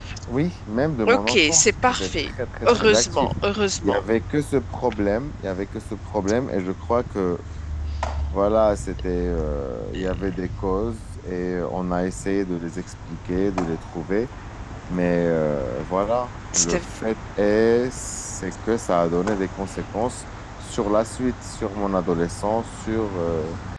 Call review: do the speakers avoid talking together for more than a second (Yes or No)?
No